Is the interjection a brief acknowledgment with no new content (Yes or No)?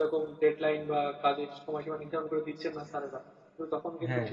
Yes